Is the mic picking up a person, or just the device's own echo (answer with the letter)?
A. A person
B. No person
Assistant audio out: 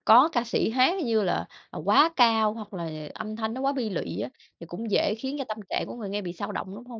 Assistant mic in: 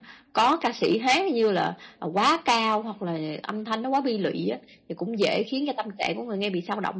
B